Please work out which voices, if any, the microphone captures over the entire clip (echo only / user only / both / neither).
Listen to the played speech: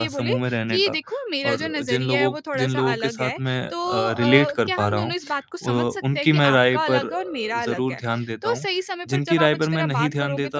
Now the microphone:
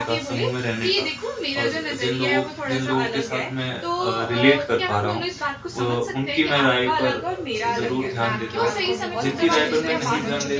both